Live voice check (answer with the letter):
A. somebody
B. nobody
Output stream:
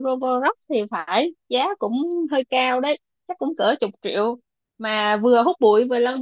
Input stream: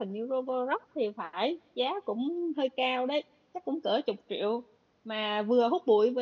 B